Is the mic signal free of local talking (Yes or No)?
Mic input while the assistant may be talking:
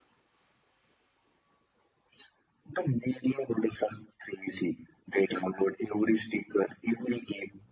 Yes